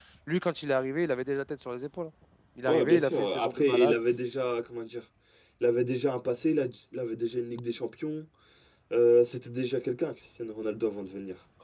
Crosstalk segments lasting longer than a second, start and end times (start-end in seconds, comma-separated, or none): 2.7-4.0